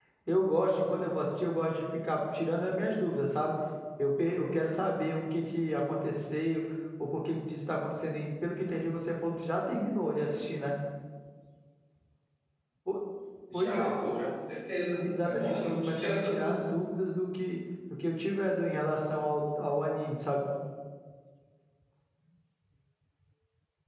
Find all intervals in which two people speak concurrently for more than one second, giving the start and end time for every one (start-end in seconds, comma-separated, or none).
15.2-16.6